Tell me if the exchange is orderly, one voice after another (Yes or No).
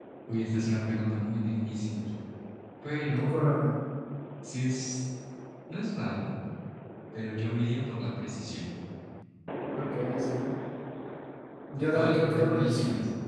No